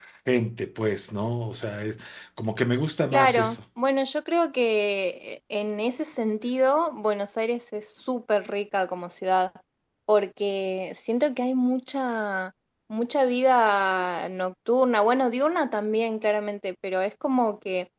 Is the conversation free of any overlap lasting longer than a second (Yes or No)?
Yes